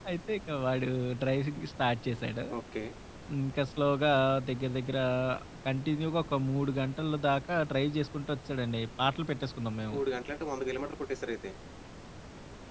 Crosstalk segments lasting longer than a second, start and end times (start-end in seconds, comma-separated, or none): none